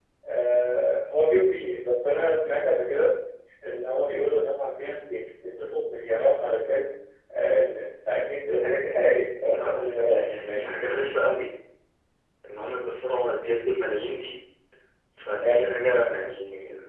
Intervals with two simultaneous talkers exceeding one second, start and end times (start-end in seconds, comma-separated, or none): 9.4-10.8